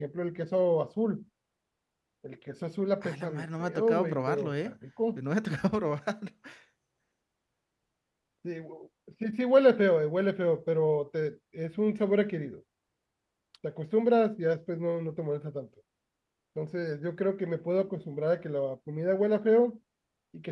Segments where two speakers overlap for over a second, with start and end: 3.0-4.5

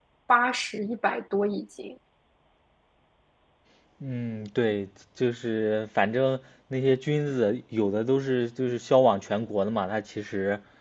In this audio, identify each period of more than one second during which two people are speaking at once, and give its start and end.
none

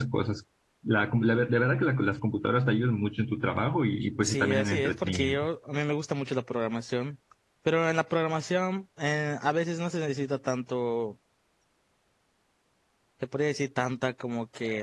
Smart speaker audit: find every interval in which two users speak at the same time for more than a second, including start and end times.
4.2-5.5

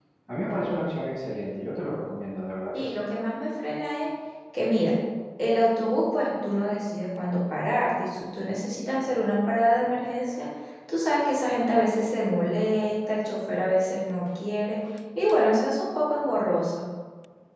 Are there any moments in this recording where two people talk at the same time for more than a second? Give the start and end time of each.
none

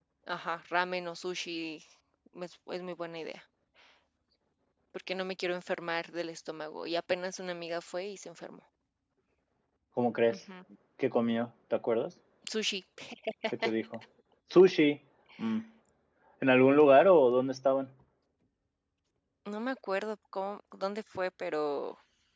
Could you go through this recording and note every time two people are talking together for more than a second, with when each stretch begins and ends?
none

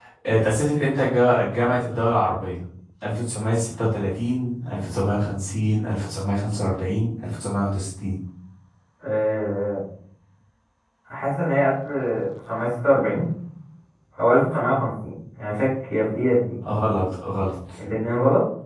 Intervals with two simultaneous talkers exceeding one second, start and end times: none

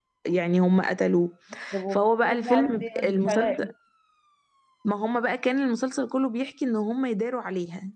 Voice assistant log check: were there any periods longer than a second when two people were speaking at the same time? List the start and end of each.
1.9-3.7

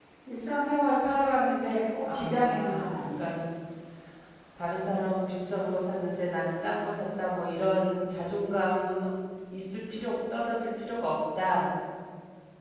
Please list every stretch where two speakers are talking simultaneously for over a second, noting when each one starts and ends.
2.0-3.3

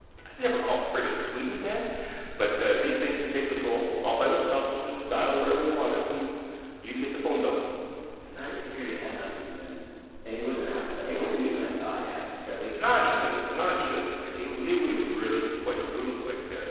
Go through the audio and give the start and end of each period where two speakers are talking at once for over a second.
none

